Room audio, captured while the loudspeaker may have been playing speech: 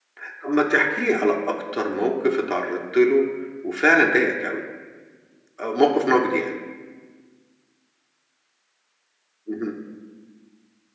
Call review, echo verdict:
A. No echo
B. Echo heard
A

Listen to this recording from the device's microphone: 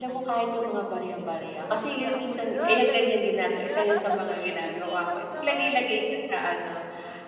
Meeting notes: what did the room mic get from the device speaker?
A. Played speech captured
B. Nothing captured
A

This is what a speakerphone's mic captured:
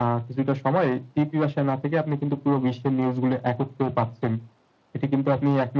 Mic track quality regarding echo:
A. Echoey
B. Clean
A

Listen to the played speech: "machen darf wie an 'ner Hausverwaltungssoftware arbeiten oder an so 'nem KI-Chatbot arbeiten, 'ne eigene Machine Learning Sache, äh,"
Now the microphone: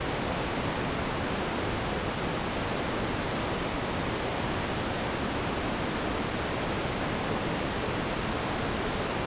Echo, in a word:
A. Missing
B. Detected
A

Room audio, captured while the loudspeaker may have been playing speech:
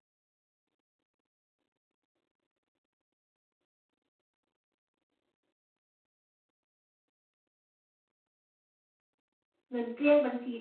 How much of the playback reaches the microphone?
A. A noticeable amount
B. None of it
B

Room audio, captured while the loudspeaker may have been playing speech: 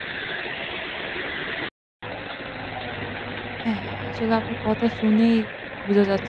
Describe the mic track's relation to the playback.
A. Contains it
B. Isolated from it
B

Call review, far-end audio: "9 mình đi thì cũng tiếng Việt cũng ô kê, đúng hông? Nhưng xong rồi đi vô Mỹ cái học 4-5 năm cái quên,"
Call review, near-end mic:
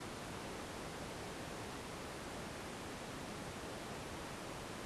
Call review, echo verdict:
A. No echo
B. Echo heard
A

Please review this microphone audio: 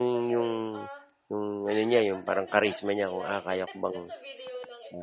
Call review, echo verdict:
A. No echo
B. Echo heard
B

